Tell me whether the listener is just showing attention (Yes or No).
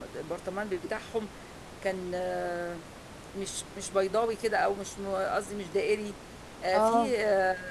Yes